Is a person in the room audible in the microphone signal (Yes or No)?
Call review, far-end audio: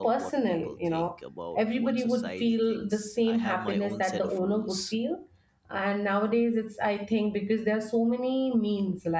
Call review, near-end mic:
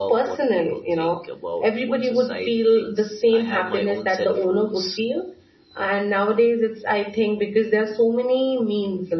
No